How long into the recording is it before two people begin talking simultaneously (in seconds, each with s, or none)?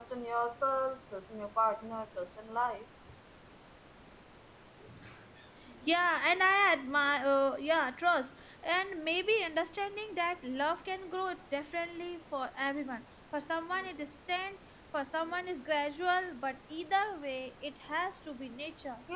none